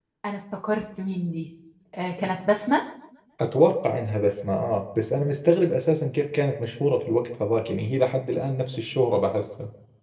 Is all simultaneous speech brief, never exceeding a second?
Yes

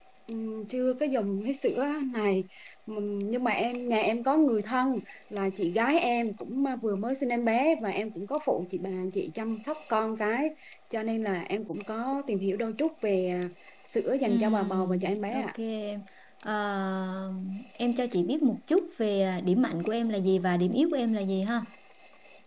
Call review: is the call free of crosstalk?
No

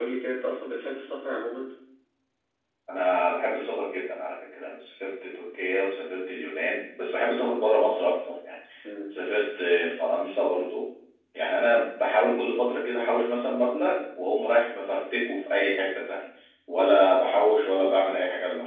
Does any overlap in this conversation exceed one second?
No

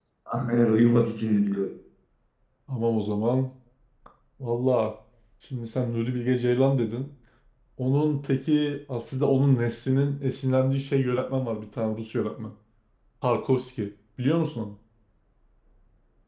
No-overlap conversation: Yes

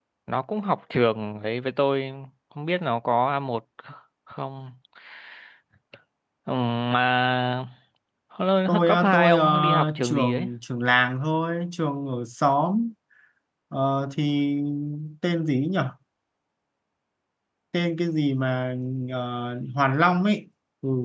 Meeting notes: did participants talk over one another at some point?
Yes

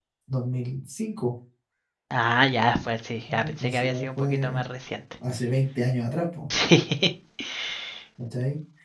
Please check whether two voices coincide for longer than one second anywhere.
Yes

